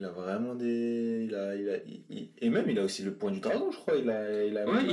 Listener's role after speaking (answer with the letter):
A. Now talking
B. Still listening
A